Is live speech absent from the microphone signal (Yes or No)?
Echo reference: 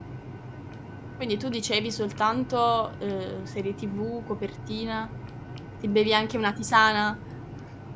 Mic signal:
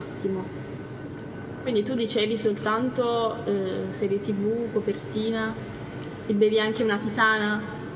Yes